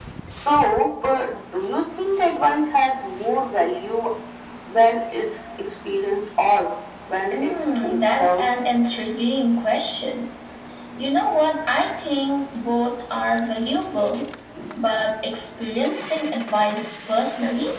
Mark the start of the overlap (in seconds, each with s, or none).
7.3 s